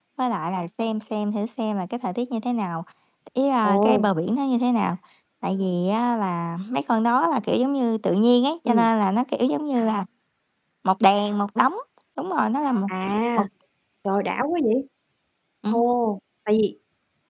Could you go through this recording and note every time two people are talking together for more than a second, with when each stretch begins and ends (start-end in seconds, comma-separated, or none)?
none